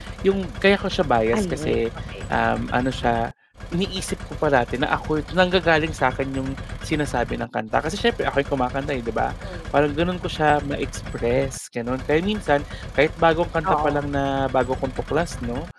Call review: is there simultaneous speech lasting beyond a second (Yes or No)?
No